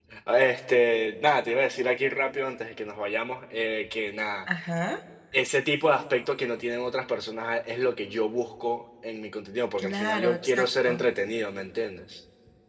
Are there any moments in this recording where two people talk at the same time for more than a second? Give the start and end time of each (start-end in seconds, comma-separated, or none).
9.8-11.0